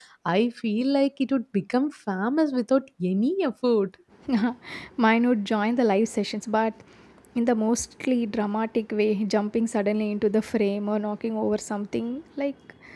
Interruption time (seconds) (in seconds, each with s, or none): none